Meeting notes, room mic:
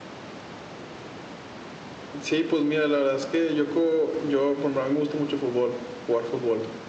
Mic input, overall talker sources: echo only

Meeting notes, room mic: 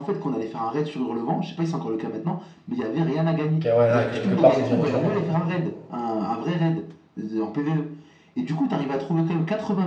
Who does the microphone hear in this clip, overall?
both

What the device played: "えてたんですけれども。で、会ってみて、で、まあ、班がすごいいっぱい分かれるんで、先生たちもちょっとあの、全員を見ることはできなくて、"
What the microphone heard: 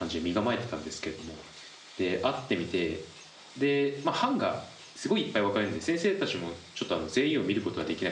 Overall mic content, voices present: echo only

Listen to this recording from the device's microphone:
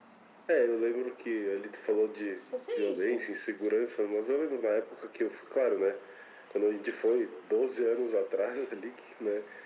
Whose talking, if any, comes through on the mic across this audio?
both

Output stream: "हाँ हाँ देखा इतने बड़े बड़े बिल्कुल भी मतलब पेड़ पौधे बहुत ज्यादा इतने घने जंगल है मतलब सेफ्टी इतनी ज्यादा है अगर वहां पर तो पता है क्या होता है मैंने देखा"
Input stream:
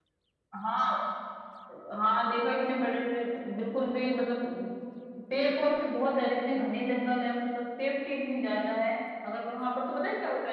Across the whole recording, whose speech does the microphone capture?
echo only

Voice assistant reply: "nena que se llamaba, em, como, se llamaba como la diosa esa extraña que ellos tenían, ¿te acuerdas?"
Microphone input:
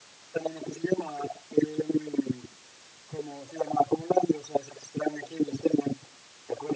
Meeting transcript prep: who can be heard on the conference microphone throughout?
echo only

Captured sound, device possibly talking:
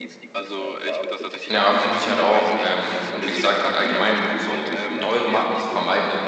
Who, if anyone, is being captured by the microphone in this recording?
both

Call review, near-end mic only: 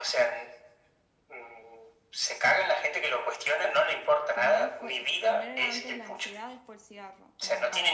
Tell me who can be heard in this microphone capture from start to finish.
both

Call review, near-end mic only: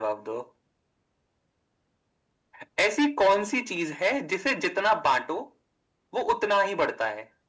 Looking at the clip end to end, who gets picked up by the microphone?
echo only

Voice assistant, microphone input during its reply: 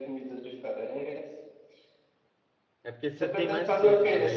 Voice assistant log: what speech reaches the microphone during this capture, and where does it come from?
both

